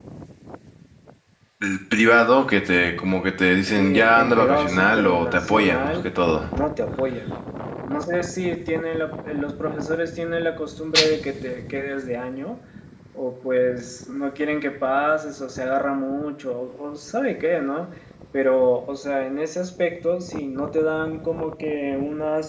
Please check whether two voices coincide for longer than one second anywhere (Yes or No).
Yes